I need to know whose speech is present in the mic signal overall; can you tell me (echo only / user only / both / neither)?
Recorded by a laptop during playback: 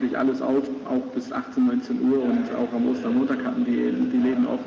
both